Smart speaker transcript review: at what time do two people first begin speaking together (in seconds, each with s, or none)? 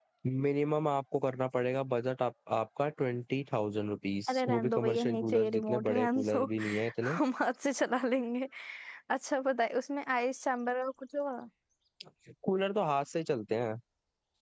4.3 s